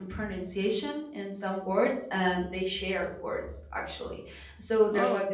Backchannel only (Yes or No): Yes